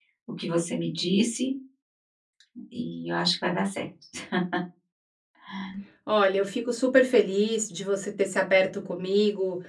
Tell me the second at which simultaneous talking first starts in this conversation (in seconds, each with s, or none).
none